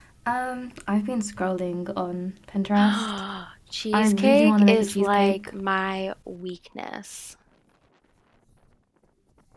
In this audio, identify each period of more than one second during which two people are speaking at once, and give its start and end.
3.9-5.4

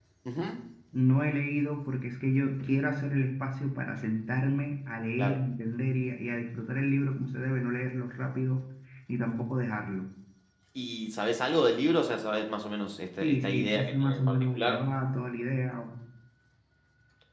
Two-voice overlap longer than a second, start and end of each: 13.2-14.8

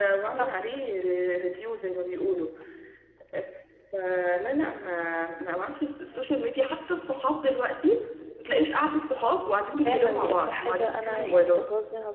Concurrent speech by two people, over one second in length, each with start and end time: 9.8-11.7

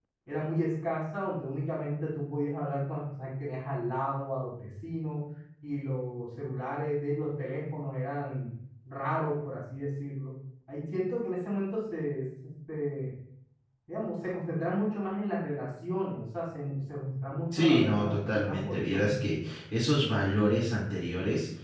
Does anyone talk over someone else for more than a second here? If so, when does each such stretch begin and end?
17.5-19.3

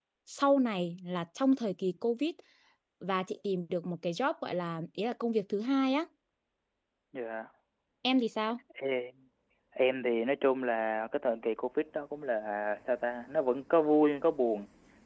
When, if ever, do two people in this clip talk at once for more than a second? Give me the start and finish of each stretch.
none

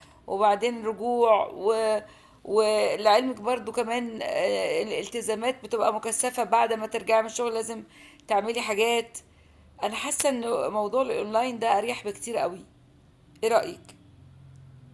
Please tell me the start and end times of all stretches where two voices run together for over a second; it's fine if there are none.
none

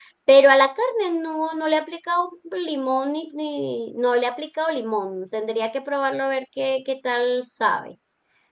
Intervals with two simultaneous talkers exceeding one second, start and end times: none

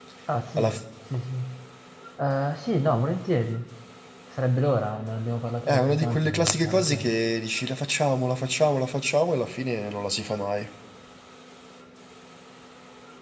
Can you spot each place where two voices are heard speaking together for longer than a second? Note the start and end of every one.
5.6-7.2

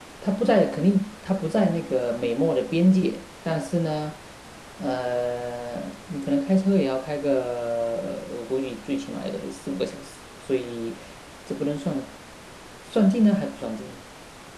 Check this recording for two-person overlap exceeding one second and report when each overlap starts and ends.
none

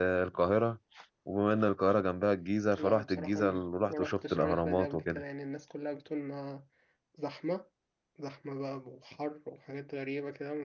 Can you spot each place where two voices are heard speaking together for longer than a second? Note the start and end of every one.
2.8-5.2

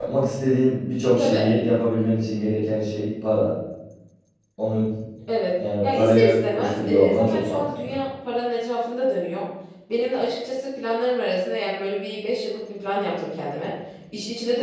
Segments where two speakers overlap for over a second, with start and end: 5.8-7.9

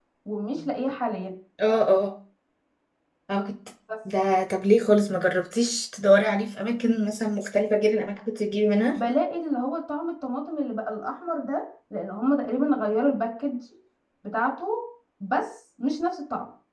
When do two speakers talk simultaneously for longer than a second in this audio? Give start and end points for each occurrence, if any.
none

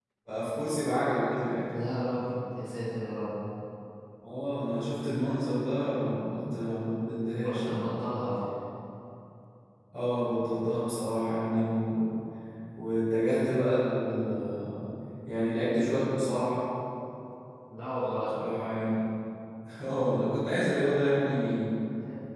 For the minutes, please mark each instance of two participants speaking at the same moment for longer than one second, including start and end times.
none

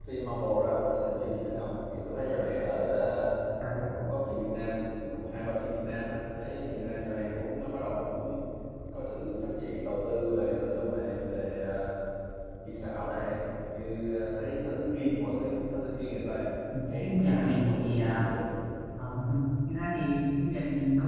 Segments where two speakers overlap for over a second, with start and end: 17.0-18.3

